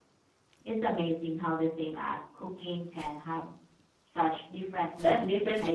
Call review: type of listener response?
taking over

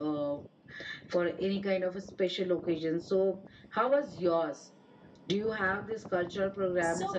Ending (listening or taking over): taking over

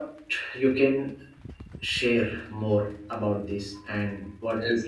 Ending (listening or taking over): taking over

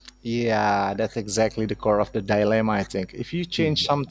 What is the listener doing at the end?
listening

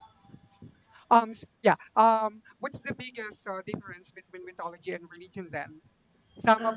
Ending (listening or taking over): listening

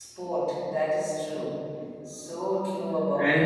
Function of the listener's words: taking over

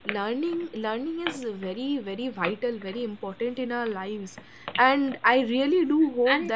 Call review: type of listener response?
taking over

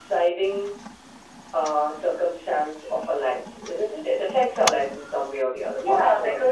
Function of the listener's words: taking over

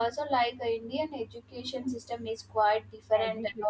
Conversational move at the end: listening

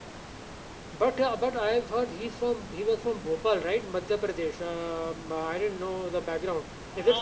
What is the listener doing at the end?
taking over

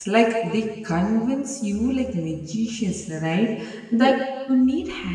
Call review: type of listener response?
listening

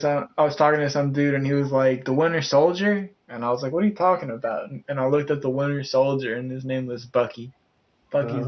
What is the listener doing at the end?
listening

